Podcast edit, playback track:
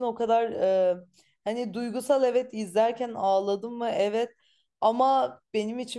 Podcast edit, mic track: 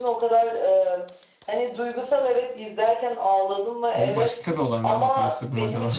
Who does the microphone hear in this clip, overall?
both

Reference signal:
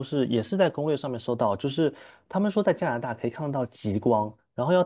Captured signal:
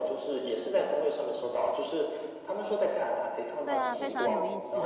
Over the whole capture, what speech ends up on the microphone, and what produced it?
both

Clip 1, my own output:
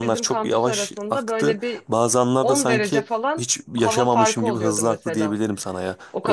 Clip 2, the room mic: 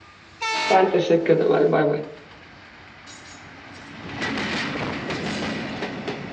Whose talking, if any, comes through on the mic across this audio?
user only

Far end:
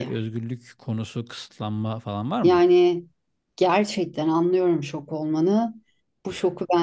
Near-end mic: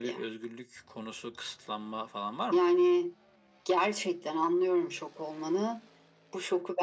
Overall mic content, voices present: echo only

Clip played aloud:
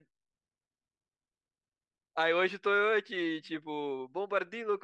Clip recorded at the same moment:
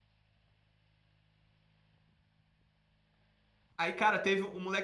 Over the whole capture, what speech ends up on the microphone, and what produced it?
user only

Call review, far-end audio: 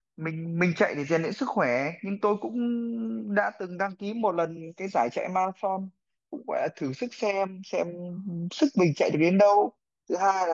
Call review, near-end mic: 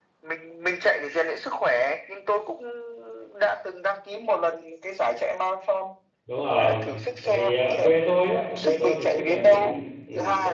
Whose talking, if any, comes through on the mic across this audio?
both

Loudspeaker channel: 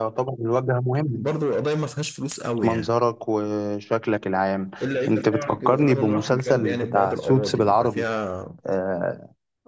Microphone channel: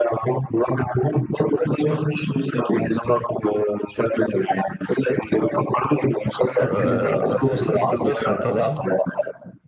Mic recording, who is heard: both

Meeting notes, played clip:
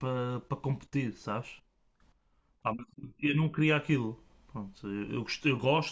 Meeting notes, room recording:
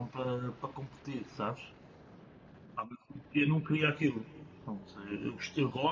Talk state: echo only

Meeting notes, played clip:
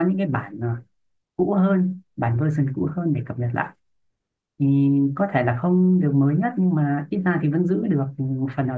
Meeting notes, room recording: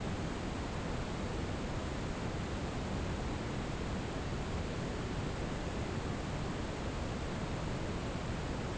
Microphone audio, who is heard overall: neither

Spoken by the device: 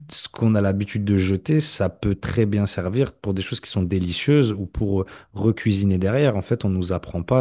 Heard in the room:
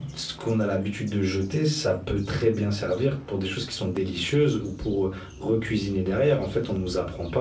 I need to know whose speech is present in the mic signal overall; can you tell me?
echo only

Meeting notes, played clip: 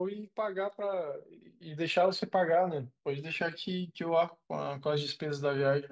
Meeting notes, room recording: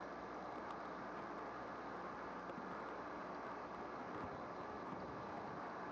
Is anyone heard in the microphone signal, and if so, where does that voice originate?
neither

